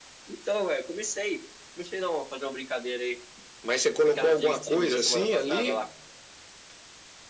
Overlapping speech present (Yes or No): Yes